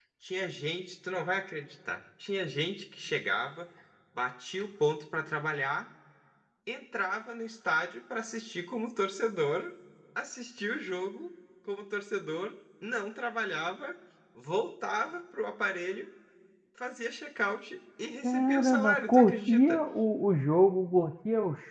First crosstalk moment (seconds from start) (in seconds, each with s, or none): 18.2 s